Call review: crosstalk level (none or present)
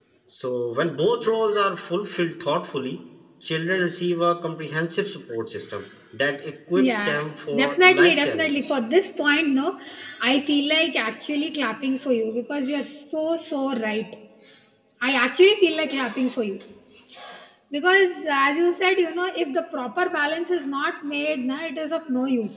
present